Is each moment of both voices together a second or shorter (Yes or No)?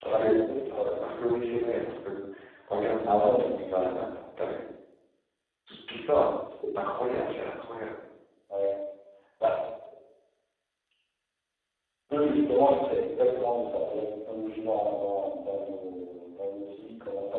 Yes